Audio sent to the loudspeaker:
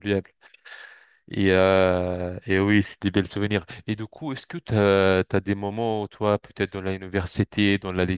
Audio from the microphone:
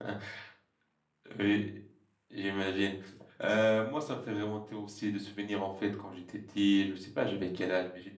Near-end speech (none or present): present